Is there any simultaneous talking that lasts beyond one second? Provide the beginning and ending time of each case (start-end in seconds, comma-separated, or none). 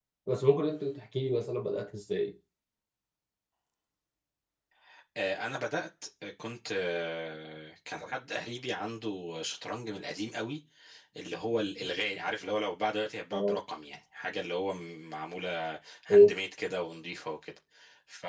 none